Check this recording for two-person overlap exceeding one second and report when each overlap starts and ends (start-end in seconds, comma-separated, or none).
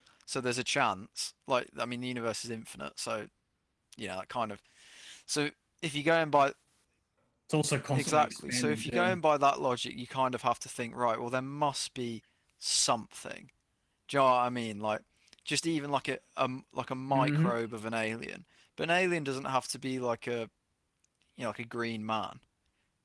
8.0-9.2